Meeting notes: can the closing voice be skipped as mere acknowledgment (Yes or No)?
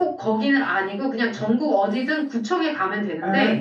Yes